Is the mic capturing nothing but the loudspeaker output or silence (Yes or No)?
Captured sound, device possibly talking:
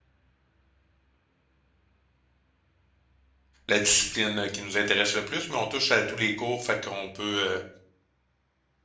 No